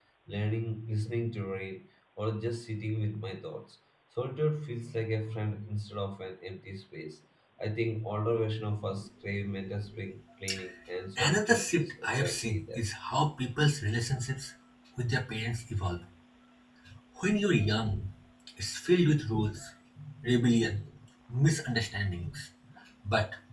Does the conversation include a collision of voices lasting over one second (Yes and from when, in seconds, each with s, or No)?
Yes, from 11.2 s